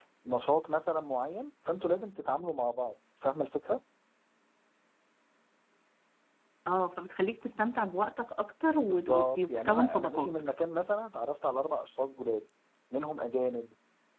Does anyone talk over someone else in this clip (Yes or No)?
Yes